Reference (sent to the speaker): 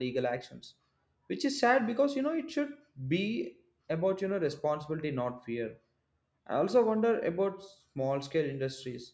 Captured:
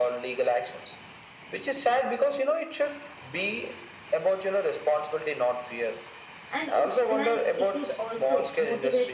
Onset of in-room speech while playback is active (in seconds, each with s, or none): 6.5 s